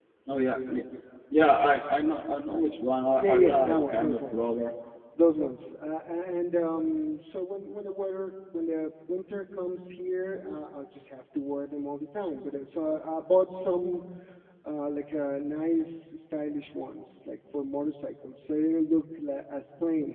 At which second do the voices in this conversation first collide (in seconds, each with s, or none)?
3.2 s